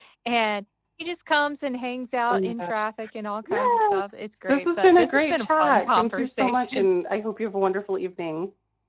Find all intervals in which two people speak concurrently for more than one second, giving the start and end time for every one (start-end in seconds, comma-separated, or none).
4.5-6.9